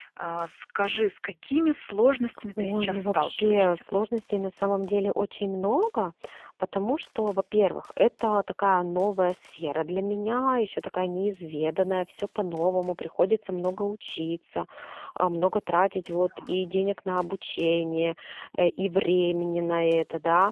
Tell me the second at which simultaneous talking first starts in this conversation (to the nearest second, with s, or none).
3 s